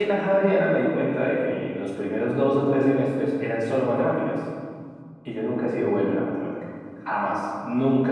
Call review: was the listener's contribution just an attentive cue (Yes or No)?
Yes